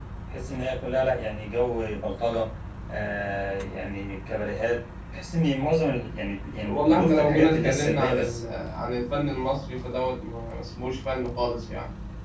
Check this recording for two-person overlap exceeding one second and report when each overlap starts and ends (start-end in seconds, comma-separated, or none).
6.6-8.4